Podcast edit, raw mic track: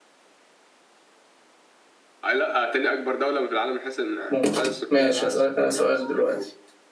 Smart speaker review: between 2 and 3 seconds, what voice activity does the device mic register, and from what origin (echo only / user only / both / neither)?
echo only